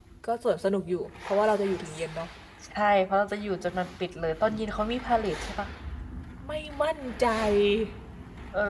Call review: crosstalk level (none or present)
none